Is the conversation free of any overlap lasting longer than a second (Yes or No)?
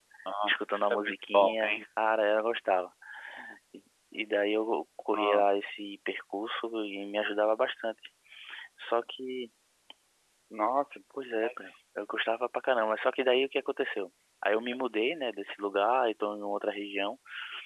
No